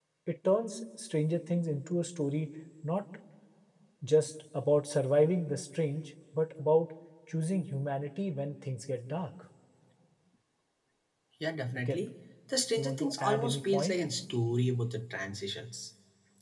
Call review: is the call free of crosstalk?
No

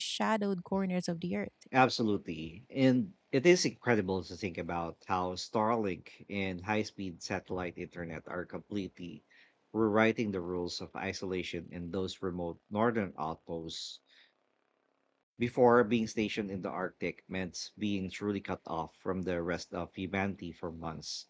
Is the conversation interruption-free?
Yes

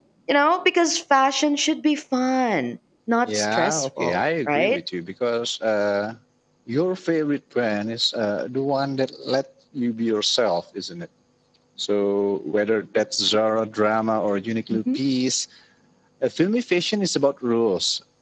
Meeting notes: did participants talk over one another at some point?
Yes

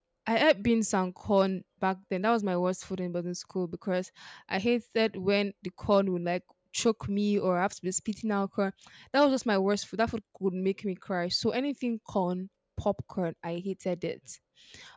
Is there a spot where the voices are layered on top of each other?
No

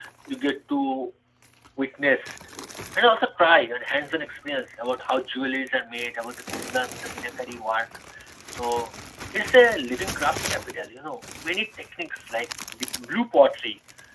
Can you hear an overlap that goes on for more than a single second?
No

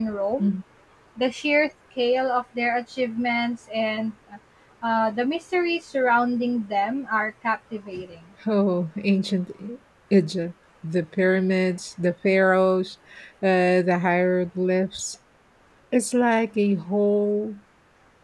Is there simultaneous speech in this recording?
No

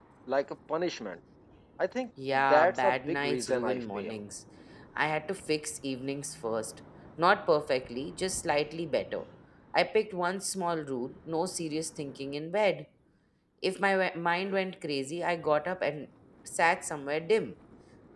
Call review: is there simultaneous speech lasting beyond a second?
Yes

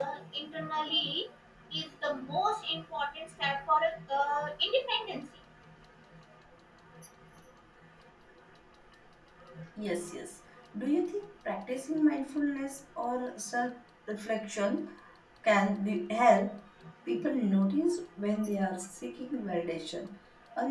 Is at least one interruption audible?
No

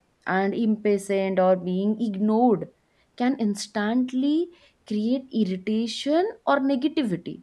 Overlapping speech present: No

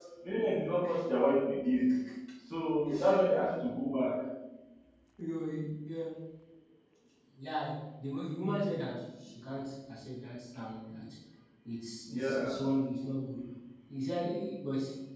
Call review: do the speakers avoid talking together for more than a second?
Yes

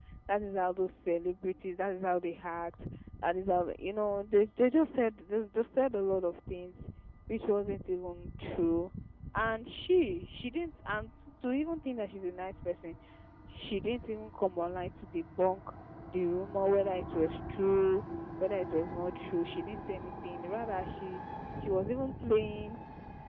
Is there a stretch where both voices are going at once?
No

